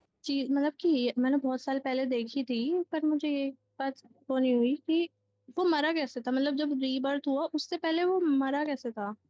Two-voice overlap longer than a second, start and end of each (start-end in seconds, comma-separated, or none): none